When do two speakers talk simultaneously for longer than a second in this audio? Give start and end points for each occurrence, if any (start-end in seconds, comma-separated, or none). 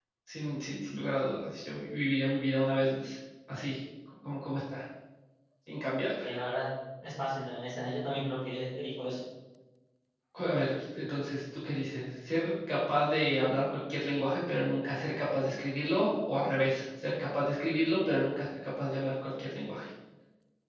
none